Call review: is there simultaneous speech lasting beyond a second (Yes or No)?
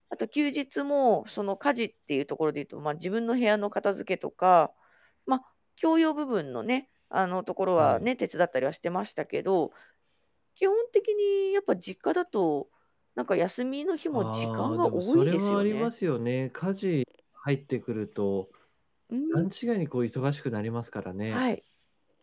Yes